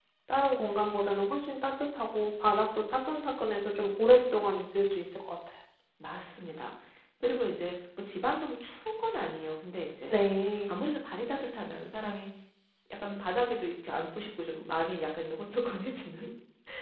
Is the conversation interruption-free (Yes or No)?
Yes